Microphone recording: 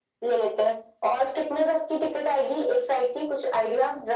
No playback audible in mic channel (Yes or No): No